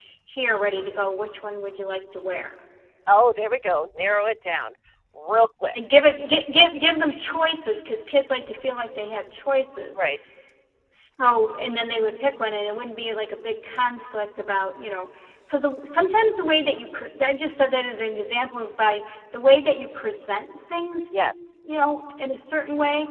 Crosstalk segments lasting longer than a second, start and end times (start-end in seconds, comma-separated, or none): none